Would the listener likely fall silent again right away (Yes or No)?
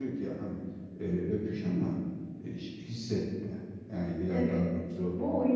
No